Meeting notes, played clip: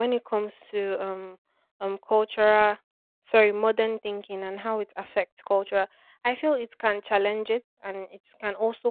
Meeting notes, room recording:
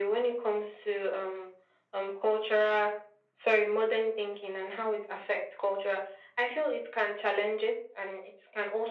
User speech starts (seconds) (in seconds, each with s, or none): none